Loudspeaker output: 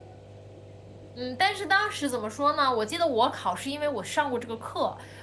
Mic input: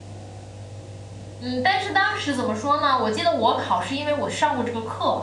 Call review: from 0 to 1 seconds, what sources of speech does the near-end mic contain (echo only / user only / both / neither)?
neither